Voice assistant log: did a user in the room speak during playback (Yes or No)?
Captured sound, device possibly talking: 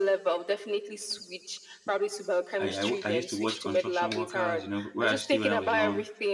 Yes